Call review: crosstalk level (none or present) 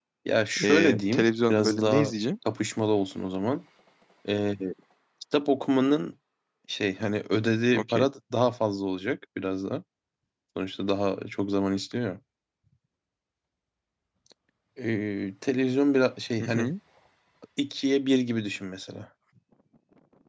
present